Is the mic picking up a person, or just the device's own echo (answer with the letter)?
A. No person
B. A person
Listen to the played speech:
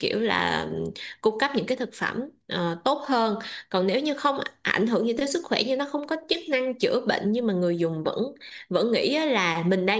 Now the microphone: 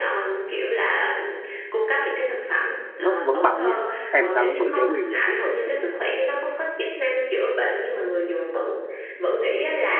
B